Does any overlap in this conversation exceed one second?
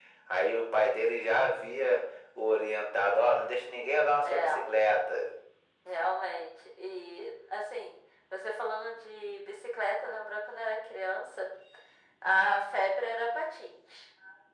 No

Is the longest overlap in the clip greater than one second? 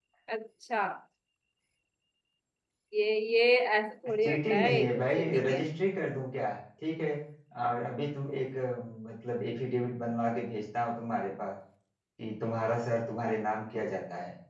Yes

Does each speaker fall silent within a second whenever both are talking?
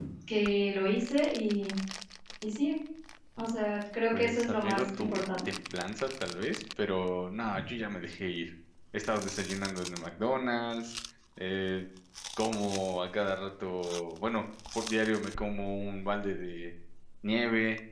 No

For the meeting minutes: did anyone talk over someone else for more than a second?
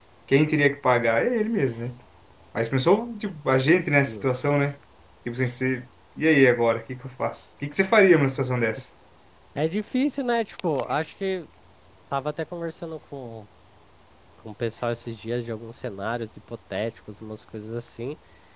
No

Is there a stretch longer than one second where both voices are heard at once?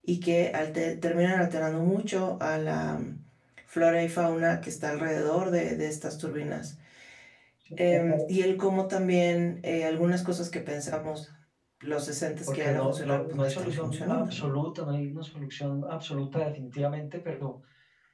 Yes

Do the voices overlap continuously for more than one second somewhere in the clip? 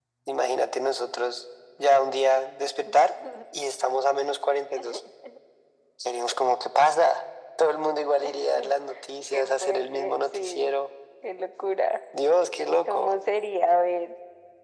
Yes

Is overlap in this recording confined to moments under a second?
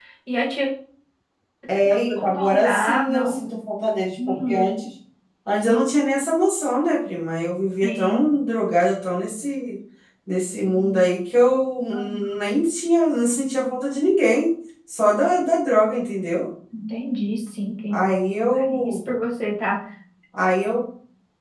No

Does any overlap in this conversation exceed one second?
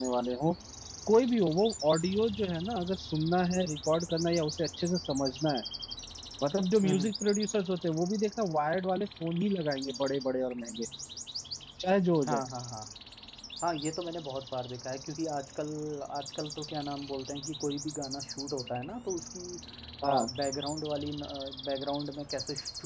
No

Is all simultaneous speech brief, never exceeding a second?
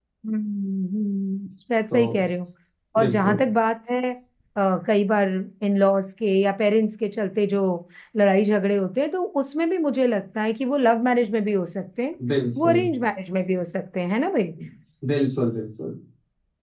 Yes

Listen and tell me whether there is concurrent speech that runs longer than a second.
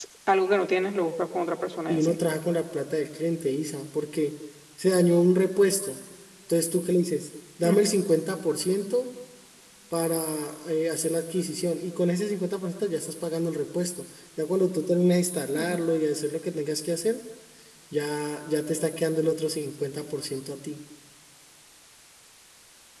No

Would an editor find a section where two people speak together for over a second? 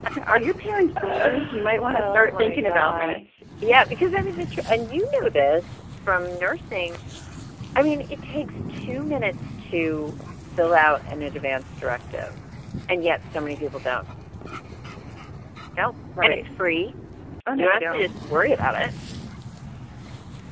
Yes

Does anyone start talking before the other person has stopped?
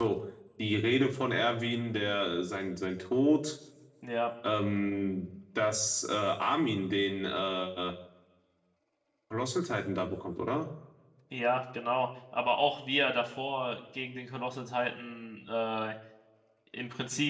No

